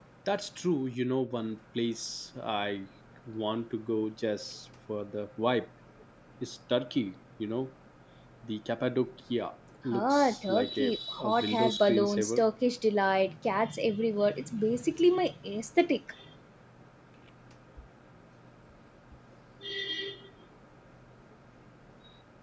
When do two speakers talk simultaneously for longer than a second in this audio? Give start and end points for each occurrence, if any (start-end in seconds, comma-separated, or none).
9.9-12.4